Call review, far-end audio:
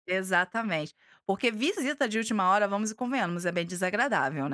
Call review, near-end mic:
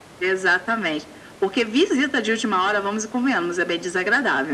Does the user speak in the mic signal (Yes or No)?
No